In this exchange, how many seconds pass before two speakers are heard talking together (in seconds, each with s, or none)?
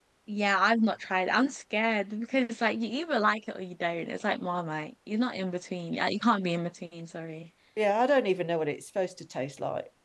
none